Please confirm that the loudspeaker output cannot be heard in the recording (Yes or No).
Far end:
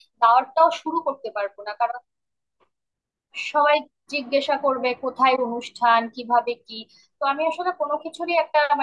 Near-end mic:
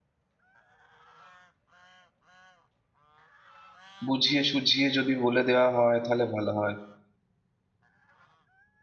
Yes